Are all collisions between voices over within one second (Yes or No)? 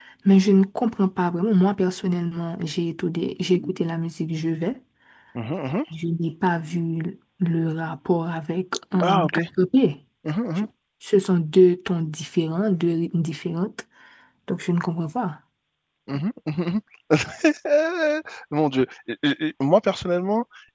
Yes